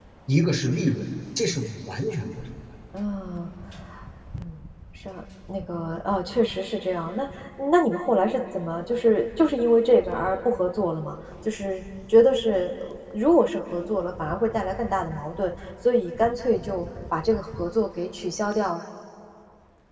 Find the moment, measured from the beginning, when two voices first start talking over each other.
none

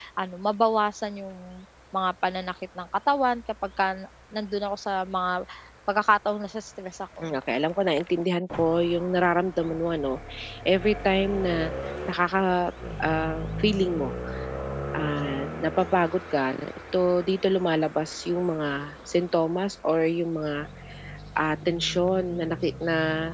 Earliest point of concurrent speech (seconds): none

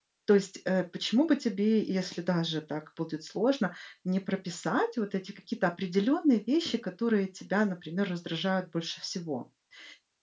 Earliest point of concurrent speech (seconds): none

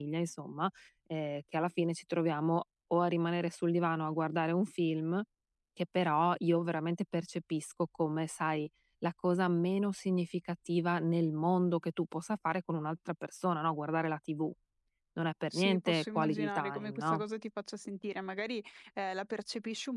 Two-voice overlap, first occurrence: 16 s

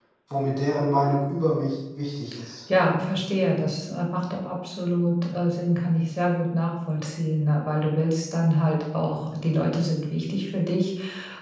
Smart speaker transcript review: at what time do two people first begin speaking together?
none

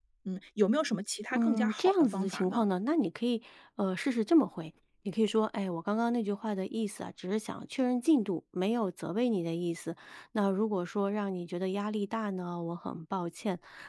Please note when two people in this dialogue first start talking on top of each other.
1 s

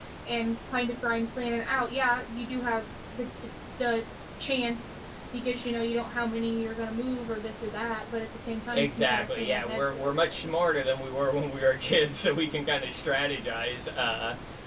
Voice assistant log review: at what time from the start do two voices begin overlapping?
9 s

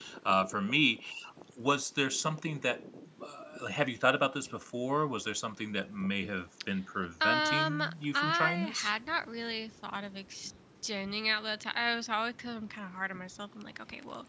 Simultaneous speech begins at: 7 s

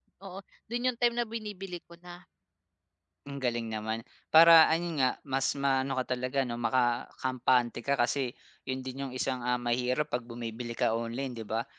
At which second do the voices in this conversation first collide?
none

